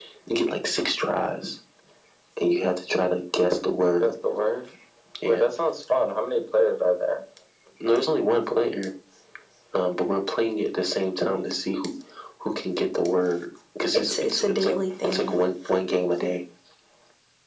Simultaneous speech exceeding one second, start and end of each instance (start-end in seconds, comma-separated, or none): 13.9-15.3